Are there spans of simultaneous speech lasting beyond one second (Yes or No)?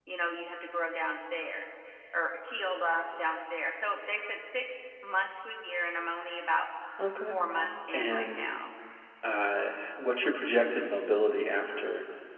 No